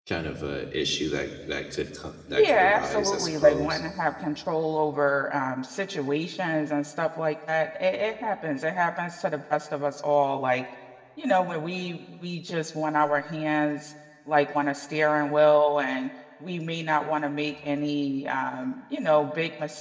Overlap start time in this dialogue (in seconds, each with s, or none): 2.3 s